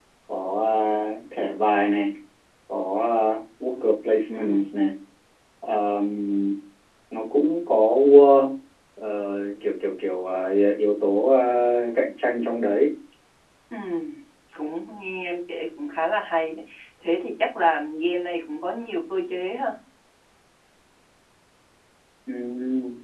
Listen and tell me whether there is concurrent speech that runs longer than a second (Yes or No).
No